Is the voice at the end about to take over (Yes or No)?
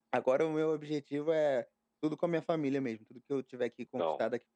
No